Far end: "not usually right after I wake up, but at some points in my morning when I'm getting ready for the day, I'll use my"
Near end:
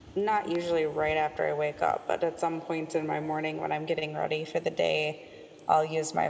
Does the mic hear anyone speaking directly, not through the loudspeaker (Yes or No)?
No